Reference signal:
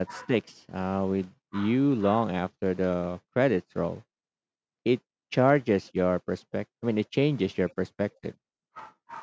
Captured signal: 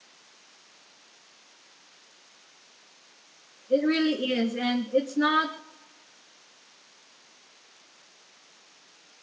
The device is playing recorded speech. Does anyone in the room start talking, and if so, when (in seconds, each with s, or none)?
3.7 s